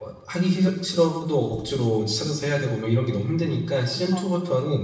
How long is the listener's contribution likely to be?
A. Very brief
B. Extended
A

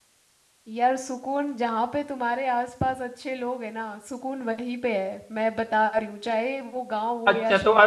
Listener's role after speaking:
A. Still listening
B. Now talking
B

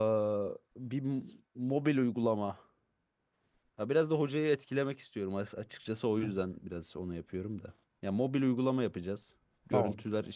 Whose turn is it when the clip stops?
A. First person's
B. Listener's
A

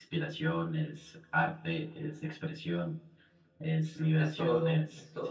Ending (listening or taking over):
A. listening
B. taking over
B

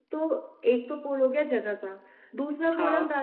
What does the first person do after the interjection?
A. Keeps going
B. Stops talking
A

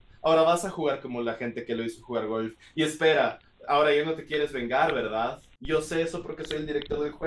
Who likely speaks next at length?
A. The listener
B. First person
B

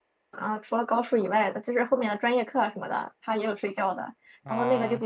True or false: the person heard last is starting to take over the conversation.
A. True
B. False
B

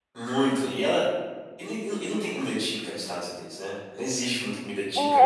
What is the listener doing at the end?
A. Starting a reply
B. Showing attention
A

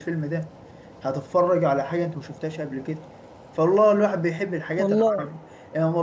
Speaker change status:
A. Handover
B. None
B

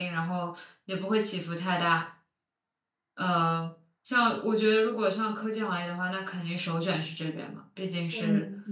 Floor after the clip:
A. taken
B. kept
A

